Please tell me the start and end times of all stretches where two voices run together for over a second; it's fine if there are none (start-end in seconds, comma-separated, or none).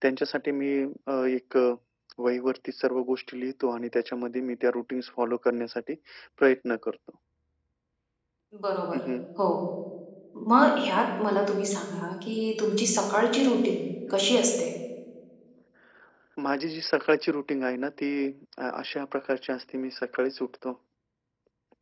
none